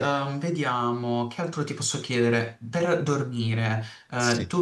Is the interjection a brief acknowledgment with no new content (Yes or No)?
Yes